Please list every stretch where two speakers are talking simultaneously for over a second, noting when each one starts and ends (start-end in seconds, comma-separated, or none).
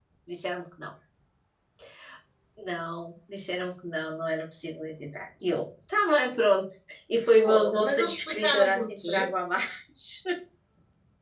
7.4-9.3